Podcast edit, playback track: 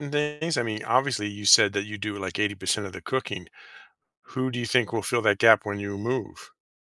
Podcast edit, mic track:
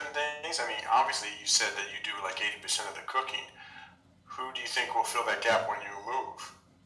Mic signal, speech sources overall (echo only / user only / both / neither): echo only